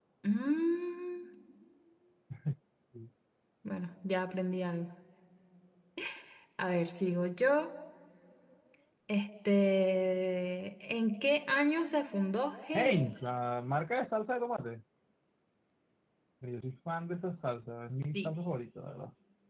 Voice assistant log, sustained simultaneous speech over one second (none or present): none